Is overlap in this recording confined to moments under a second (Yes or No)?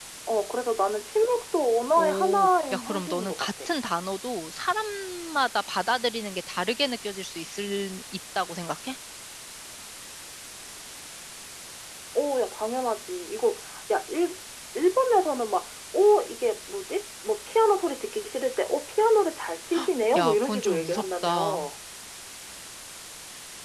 No